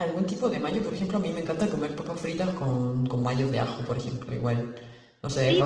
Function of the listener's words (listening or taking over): taking over